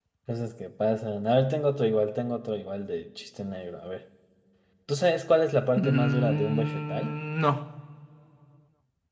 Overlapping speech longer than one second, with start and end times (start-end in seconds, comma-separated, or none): 5.8-7.2